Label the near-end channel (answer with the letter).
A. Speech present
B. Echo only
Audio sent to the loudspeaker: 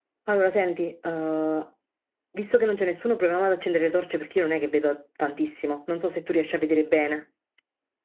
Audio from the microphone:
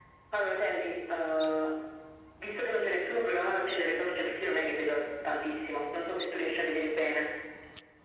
B